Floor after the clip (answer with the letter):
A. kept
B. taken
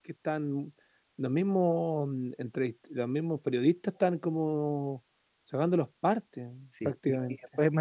B